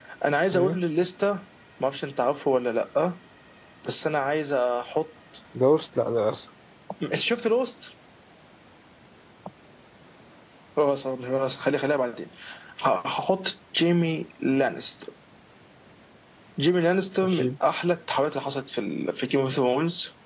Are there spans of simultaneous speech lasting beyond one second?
No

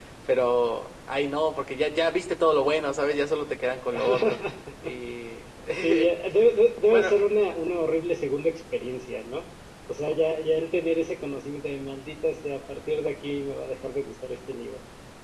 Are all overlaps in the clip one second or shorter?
Yes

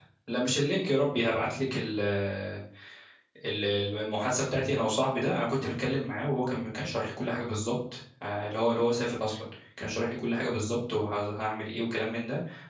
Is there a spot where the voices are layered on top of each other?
No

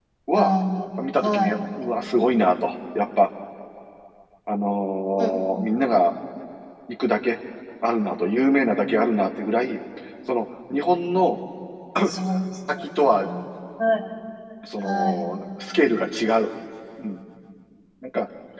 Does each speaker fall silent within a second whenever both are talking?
Yes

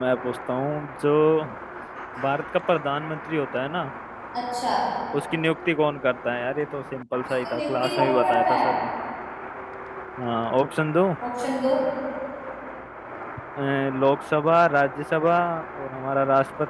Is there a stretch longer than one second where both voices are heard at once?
Yes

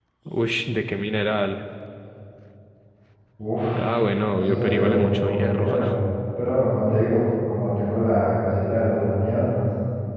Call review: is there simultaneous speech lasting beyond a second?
Yes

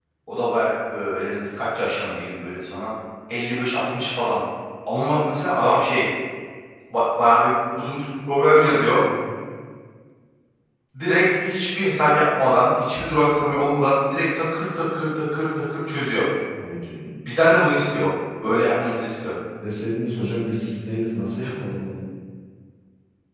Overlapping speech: No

